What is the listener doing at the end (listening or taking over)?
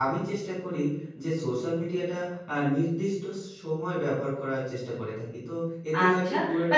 taking over